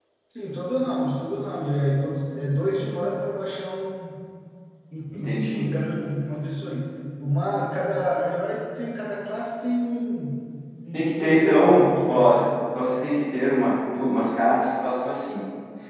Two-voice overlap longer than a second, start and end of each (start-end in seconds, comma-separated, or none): 10.9-12.4